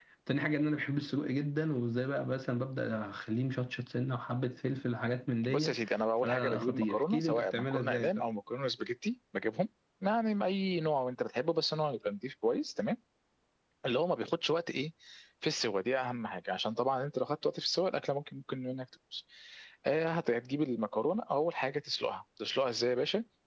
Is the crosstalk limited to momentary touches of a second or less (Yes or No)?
No